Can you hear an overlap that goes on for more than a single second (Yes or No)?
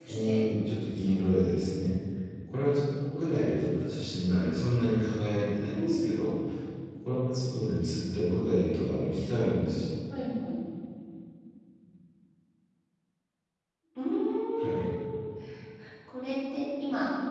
No